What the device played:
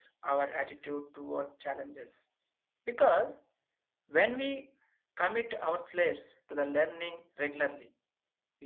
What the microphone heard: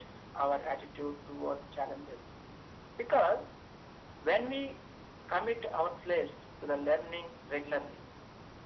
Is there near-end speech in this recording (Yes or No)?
No